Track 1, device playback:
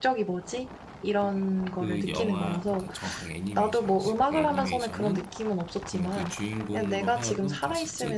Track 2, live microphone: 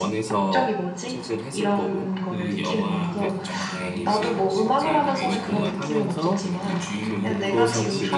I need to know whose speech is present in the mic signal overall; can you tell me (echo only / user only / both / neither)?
both